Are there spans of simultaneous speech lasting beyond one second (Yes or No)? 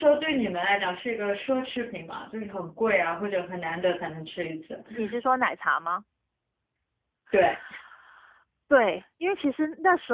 No